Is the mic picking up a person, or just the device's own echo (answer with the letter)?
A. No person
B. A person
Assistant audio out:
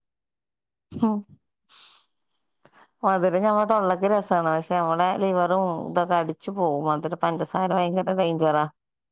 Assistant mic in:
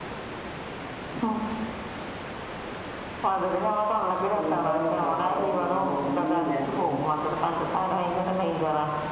B